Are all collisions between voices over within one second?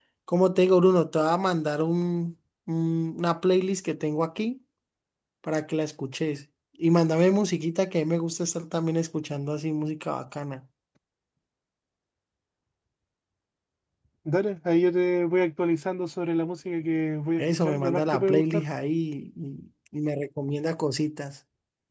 No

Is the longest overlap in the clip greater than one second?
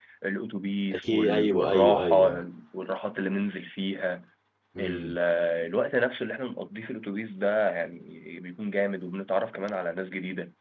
Yes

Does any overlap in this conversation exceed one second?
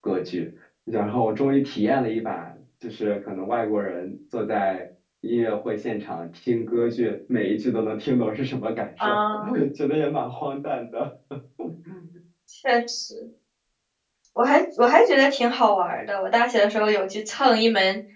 No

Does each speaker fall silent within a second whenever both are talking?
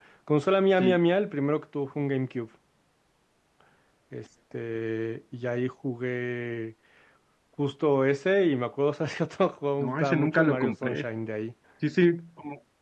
No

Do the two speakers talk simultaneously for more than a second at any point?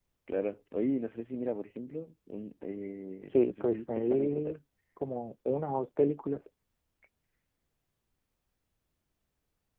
Yes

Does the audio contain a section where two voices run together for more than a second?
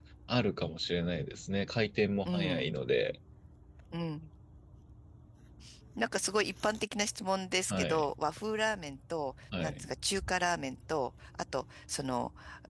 No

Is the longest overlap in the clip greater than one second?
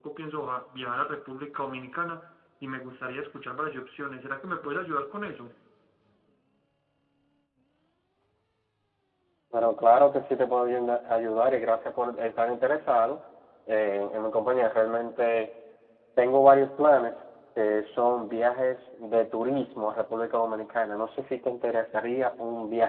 No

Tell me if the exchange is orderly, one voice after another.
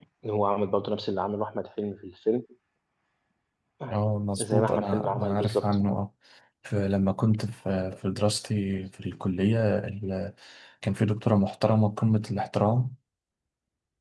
No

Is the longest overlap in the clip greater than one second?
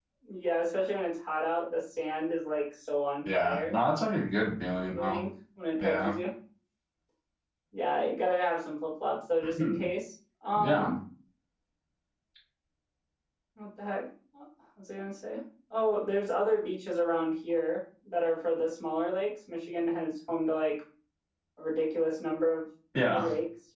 No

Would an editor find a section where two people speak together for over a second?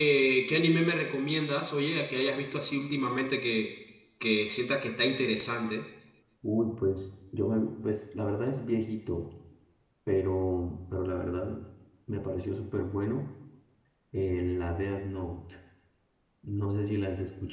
No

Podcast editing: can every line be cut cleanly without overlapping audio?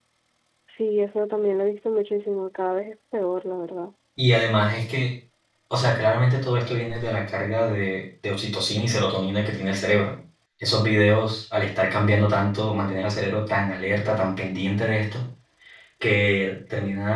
Yes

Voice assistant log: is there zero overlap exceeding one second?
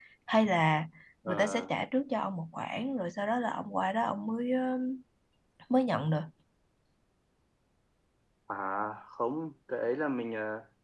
Yes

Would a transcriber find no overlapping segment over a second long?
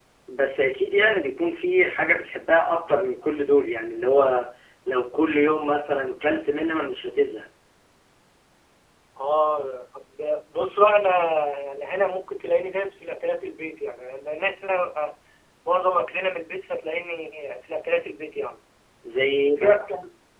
Yes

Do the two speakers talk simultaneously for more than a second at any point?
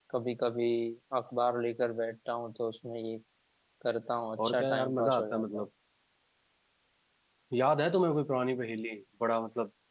Yes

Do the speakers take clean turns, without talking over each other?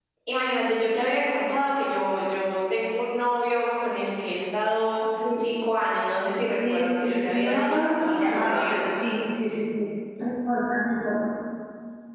No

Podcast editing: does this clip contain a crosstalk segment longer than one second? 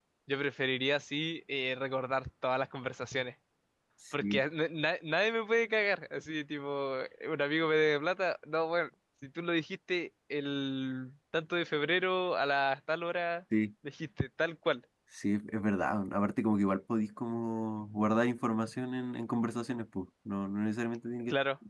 No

